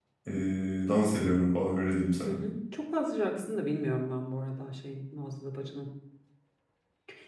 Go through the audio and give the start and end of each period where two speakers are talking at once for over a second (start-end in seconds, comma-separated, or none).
none